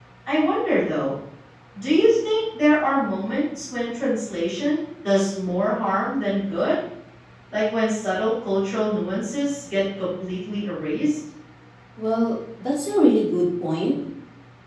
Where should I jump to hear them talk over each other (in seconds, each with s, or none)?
none